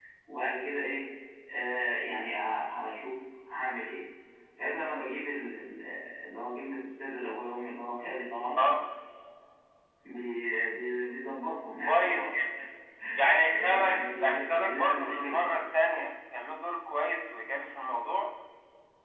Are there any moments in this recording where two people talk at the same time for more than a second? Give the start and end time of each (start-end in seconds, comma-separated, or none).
13.5-15.5